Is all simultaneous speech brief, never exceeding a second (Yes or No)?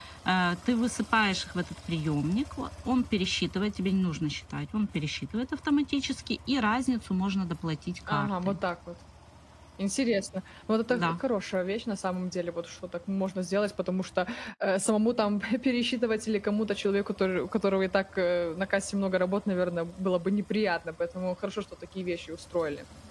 Yes